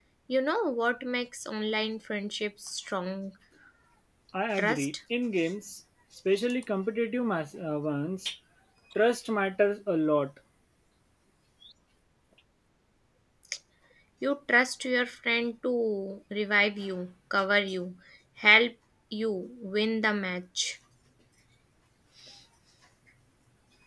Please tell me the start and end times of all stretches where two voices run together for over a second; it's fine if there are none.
none

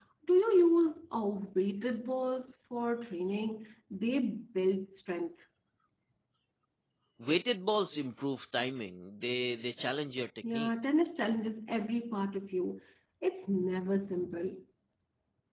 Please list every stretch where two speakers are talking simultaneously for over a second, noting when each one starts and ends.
none

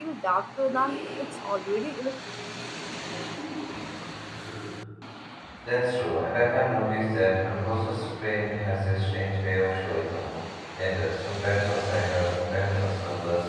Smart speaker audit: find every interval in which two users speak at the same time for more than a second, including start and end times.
none

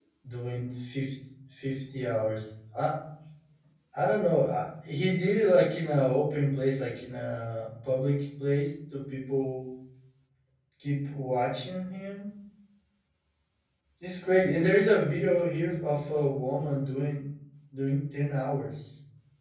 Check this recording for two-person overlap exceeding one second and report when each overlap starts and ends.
none

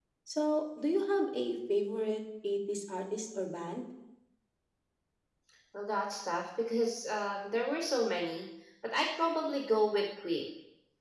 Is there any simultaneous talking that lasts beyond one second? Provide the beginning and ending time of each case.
none

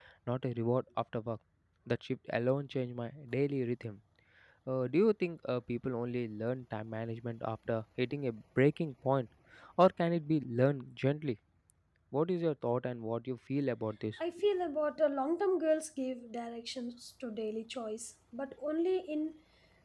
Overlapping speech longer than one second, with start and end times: none

